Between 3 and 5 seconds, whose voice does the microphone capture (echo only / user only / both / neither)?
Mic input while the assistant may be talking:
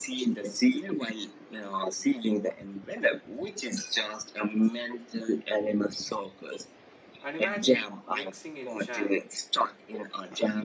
echo only